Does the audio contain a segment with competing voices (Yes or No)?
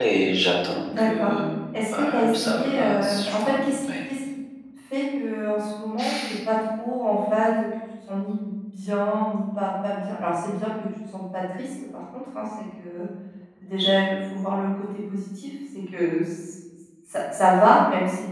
Yes